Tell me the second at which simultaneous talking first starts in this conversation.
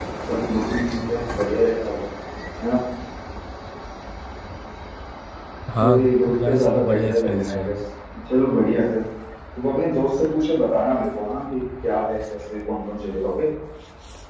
5.8 s

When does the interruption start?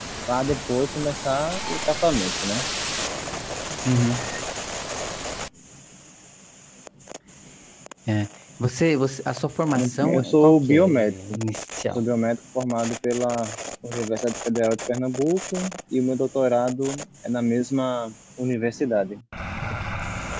10.0 s

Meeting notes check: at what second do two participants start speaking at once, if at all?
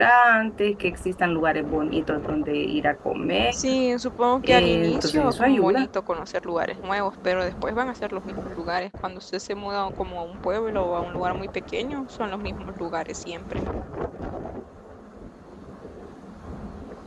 4.4 s

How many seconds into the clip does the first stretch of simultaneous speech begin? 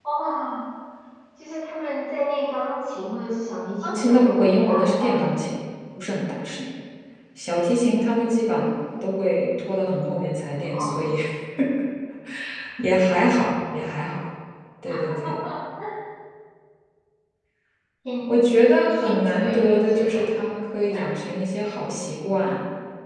3.8 s

